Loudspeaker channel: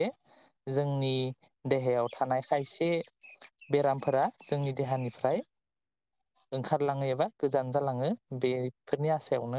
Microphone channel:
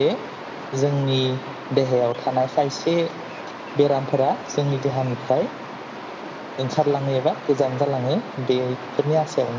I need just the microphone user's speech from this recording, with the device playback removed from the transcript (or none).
none